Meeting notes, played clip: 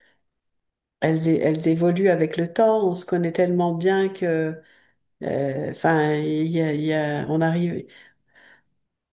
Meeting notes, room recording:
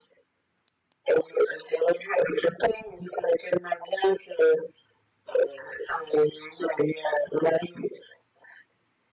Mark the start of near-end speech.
none

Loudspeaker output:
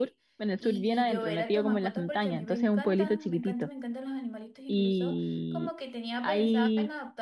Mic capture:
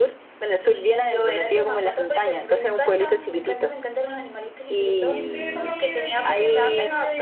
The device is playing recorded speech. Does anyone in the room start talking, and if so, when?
5.0 s

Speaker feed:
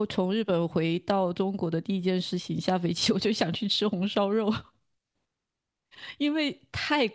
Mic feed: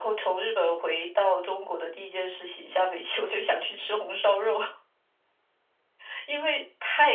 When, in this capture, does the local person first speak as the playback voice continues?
none

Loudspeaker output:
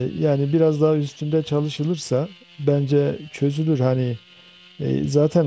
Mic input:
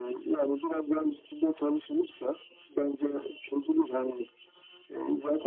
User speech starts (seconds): none

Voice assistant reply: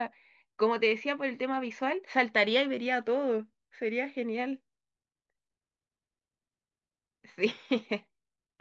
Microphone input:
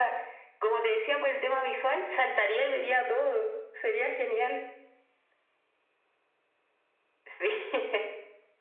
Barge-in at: none

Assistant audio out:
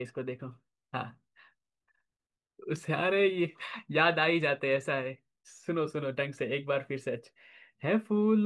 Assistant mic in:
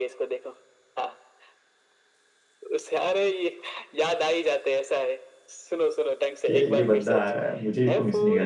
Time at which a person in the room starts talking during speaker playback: 6.5 s

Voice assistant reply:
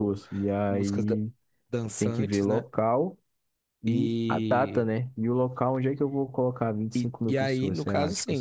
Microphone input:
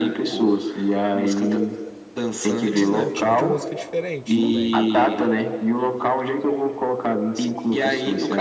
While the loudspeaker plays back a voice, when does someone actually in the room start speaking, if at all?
2.7 s

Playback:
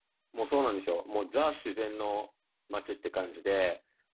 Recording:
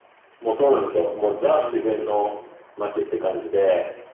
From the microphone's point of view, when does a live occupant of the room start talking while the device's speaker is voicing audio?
1.4 s

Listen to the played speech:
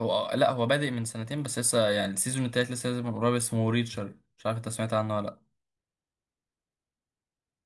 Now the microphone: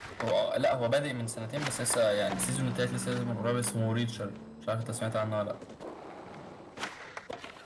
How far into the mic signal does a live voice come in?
none

